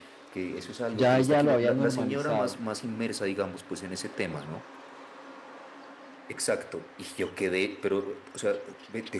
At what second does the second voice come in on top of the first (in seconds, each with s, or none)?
0.9 s